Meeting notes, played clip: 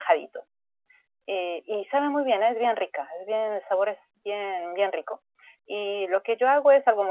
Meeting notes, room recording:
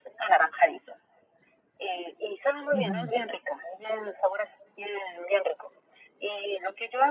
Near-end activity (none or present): present